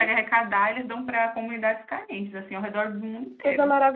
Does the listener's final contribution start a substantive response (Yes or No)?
Yes